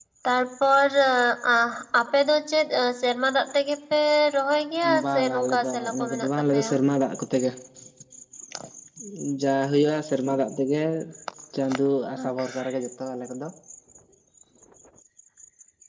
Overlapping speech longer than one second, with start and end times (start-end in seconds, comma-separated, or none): 5.0-6.7